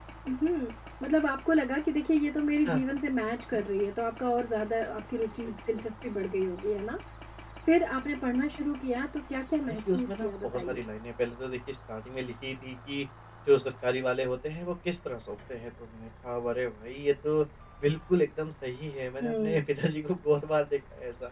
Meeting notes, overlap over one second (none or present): present